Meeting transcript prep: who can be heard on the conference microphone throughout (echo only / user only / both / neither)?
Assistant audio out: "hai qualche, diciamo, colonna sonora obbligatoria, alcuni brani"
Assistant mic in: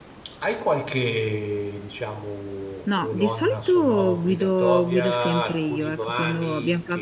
both